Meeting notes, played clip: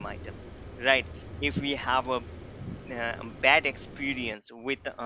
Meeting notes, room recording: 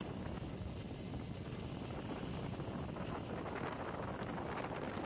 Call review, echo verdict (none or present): none